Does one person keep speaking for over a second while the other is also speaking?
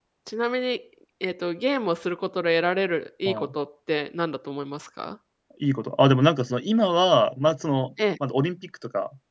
No

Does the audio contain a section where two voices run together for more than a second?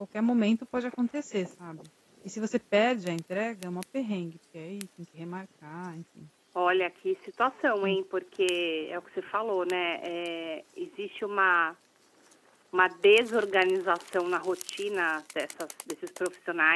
No

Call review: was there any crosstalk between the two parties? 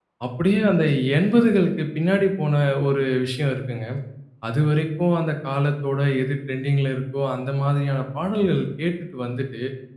No

